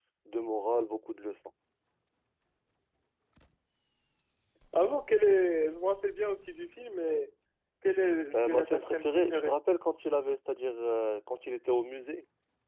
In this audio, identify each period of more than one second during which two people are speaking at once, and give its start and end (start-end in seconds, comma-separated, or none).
8.3-9.6